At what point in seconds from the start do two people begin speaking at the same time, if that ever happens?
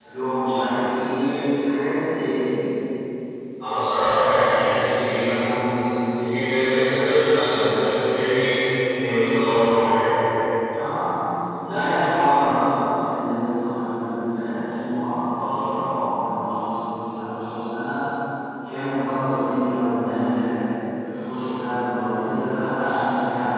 none

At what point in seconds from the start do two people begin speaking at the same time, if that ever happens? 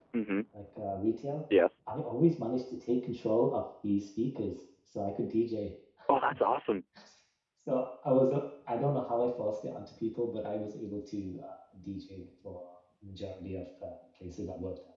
none

